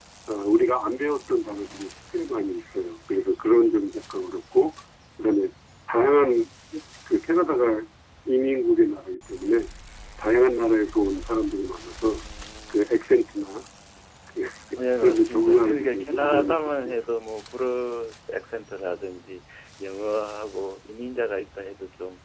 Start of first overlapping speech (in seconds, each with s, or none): 15.0 s